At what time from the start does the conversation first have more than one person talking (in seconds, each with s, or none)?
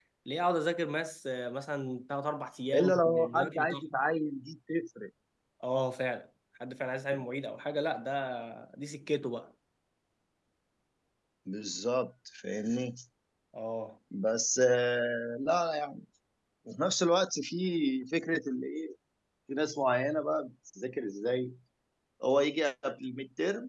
2.7 s